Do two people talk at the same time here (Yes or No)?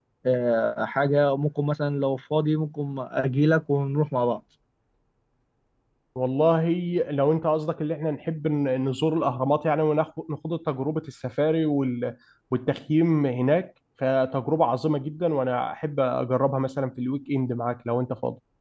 No